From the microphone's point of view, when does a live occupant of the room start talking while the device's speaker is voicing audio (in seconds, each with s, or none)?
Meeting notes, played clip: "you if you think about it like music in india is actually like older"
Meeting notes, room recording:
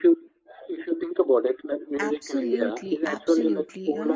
2.0 s